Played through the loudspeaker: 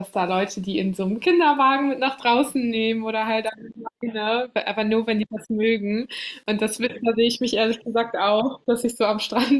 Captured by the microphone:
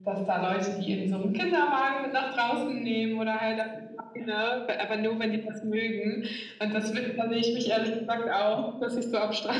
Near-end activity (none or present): none